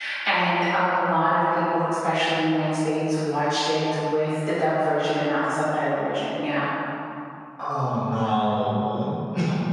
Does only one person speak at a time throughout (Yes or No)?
Yes